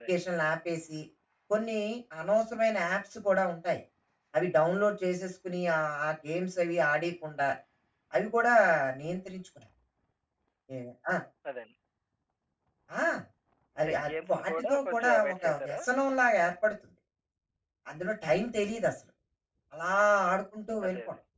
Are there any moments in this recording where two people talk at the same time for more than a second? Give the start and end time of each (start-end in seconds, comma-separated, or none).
13.8-15.8